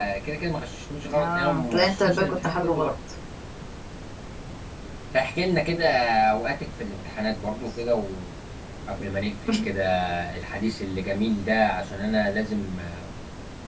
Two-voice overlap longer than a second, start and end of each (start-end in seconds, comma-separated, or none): 1.1-2.9